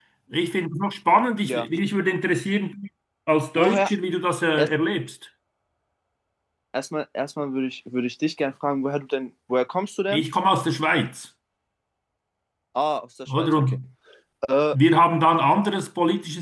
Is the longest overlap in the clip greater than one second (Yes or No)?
No